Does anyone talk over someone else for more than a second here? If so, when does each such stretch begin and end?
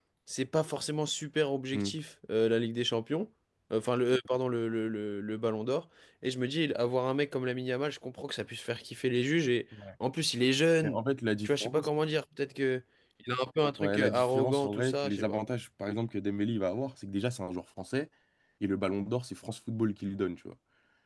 13.8-15.4

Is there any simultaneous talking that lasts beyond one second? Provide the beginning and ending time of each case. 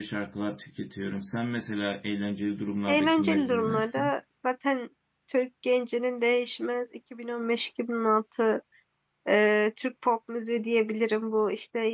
2.9-4.1

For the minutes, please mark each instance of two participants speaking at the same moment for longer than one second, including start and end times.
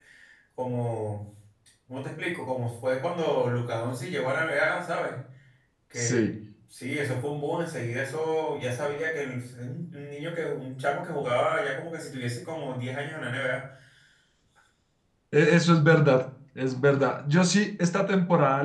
none

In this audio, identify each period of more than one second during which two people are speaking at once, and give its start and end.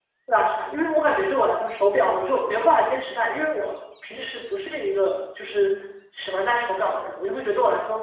none

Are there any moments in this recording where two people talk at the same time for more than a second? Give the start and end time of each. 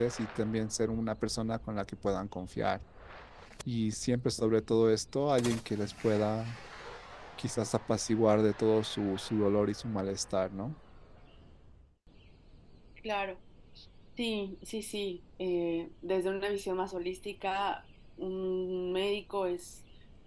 none

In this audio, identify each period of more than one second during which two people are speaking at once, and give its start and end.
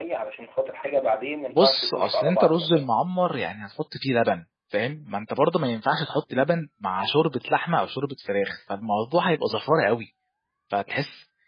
1.6-2.9

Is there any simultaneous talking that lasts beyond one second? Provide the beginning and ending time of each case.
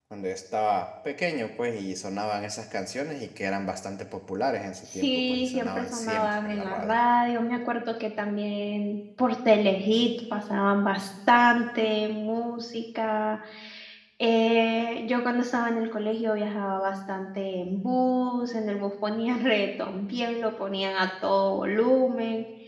4.9-7.0

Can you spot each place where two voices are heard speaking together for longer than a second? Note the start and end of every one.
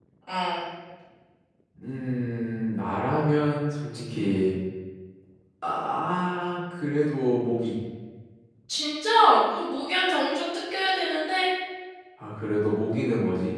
none

